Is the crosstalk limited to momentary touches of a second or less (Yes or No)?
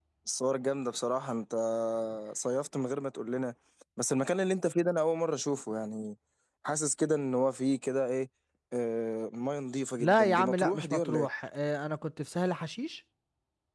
No